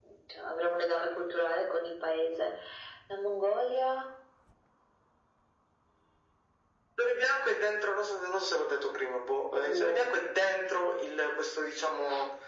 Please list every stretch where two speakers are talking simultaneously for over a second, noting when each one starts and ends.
none

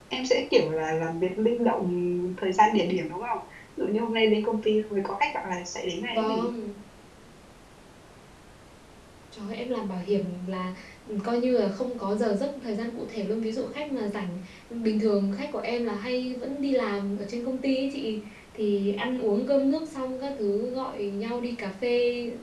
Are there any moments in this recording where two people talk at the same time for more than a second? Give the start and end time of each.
none

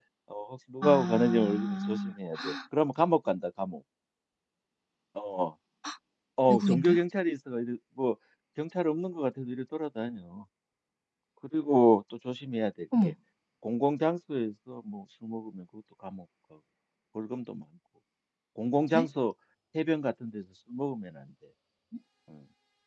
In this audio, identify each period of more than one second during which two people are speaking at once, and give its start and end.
0.8-2.1

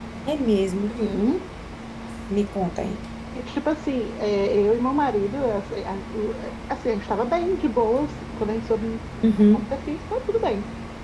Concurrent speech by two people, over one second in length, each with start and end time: none

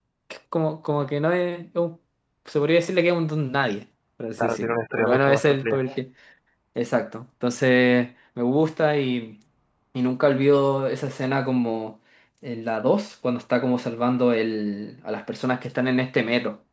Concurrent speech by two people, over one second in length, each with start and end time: 4.4-5.8

